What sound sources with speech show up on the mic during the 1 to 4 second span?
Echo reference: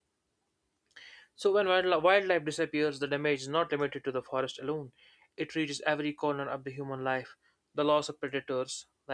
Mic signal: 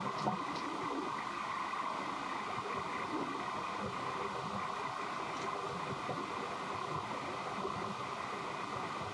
neither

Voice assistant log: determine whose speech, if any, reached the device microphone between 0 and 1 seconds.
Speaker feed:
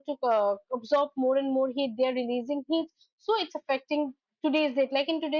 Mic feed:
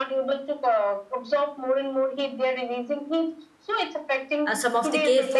echo only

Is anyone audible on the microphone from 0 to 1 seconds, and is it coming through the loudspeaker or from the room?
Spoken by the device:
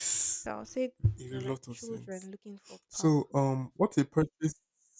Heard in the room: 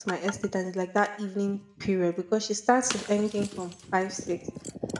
user only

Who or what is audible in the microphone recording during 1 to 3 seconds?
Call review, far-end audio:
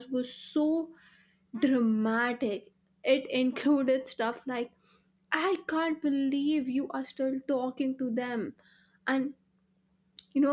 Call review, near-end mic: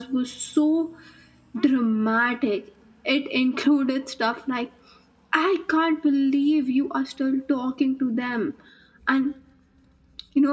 echo only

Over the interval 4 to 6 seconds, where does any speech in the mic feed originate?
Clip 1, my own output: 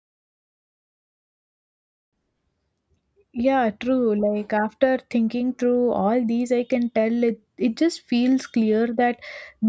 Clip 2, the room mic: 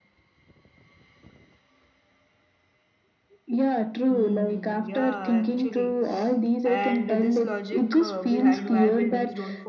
both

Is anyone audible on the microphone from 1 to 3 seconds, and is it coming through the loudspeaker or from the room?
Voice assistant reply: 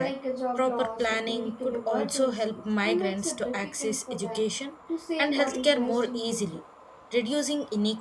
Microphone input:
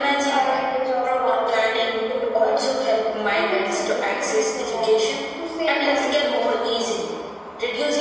echo only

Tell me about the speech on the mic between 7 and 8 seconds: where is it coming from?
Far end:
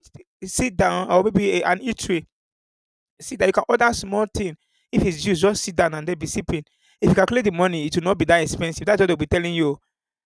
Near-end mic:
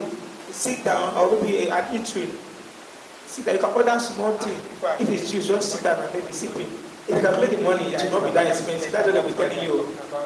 both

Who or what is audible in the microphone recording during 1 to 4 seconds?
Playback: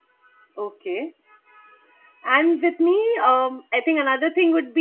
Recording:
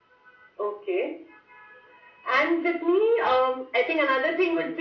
echo only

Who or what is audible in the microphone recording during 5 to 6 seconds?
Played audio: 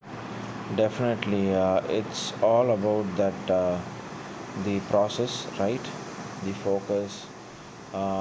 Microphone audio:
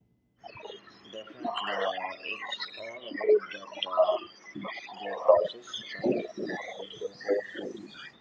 echo only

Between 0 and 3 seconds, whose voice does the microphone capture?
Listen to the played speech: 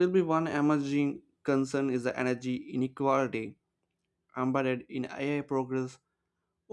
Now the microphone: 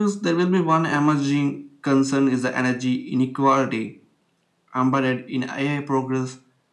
echo only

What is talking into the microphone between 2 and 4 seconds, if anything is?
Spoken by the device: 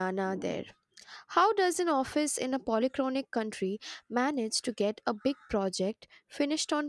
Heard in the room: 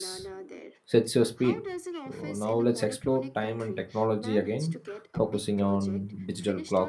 both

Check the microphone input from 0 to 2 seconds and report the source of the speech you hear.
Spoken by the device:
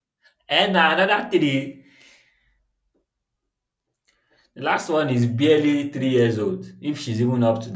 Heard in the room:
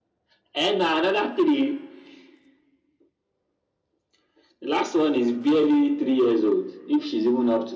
echo only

